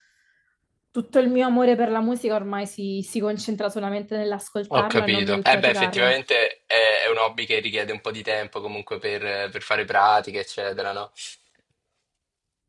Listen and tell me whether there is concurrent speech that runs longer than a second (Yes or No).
Yes